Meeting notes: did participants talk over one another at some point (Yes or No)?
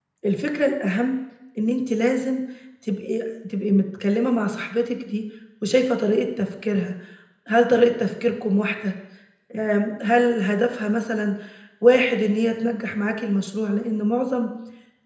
No